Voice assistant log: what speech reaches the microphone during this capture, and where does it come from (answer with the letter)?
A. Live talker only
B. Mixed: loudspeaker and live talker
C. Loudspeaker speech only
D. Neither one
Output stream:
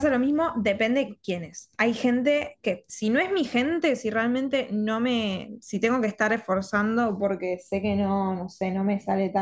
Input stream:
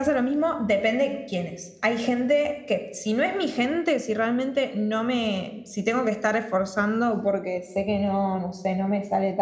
C